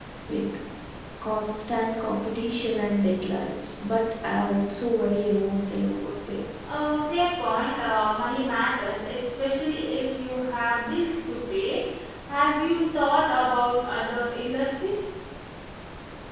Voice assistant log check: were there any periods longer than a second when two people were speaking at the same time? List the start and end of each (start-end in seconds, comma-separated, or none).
none